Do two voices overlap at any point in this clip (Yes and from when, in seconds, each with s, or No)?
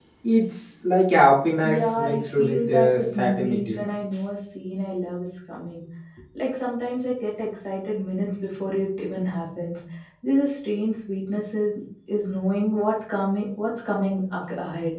Yes, from 1.6 s